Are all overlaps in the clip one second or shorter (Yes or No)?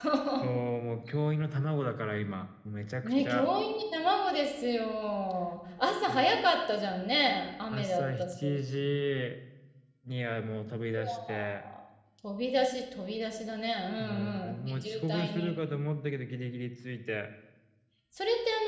No